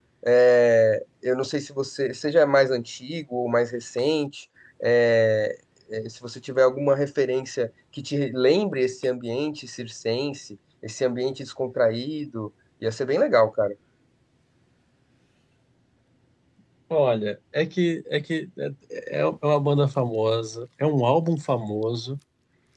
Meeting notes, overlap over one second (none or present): none